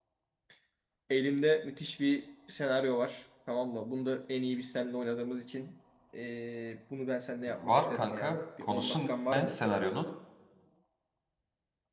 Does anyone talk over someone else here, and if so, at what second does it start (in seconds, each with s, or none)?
7.6 s